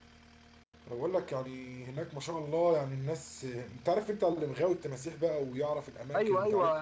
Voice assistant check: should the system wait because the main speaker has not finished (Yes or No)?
No